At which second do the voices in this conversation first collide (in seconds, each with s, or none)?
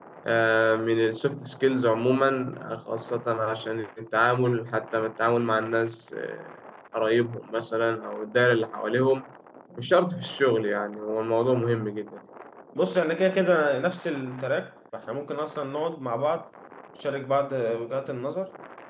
none